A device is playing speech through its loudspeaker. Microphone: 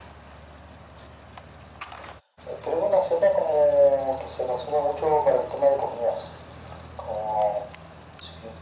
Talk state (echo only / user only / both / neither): echo only